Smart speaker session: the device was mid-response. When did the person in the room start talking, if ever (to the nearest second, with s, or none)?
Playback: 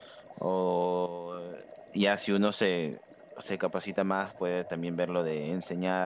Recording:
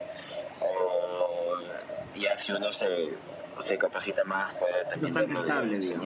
5 s